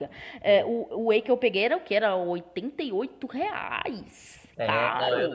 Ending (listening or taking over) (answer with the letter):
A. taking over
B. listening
A